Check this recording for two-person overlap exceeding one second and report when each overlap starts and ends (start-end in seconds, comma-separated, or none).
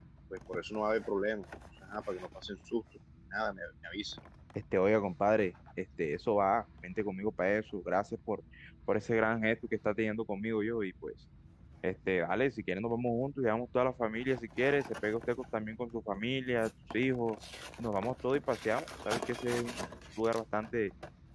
none